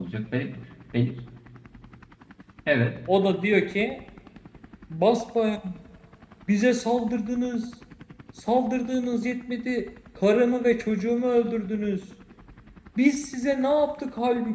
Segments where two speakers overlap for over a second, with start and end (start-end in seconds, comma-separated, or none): none